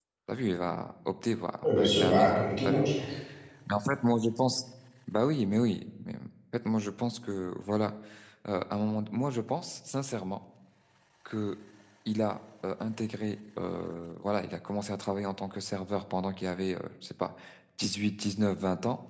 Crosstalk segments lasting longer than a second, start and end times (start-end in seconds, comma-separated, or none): 1.6-2.9